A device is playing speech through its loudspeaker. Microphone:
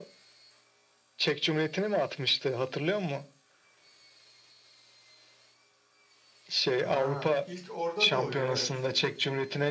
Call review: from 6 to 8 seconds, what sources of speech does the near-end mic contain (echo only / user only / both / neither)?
both